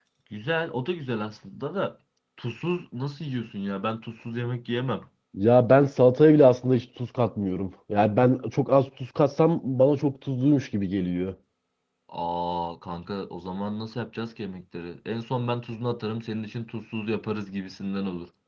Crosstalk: none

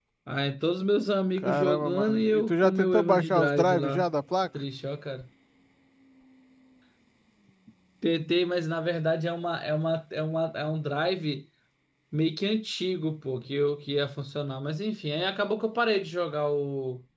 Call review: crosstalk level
present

